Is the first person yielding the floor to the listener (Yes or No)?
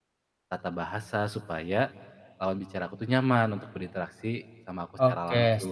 Yes